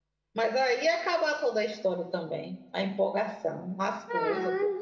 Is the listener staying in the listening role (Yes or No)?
No